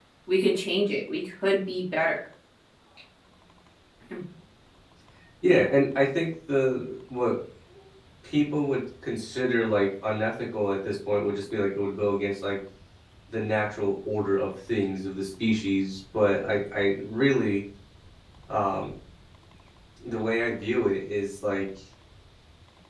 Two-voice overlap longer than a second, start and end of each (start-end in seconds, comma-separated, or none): none